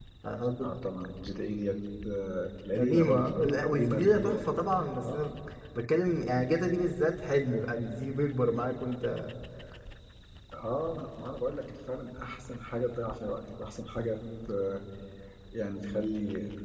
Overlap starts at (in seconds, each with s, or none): 2.7 s